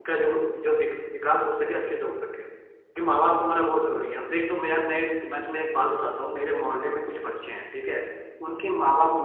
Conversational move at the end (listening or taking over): listening